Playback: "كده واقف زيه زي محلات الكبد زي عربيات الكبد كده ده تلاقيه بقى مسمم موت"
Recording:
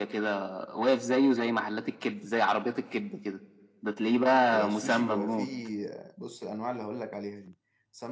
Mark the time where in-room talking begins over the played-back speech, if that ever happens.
5 s

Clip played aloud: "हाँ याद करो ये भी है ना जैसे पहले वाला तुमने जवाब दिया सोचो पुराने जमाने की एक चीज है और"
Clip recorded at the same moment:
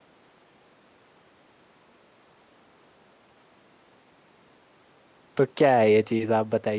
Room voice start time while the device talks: 5 s

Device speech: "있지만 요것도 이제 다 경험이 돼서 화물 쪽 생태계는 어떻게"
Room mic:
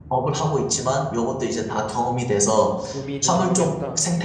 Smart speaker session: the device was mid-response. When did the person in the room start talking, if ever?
3 s

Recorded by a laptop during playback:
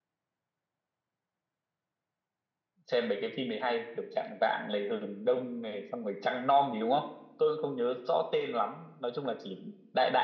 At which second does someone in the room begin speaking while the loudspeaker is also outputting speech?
3 s

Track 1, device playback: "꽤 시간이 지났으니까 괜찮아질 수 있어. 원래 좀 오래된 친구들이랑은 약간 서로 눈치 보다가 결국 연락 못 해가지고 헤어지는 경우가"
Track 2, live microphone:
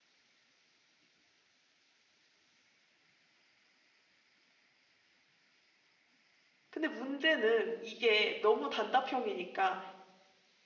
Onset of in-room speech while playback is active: 7 s

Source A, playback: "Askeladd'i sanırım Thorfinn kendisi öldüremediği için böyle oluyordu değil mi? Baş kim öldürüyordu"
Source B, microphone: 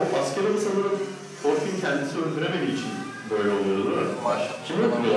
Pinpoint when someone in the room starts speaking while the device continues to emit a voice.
4 s

